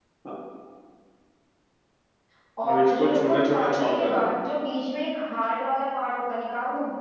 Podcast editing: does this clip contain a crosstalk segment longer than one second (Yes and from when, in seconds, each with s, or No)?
Yes, from 2.7 s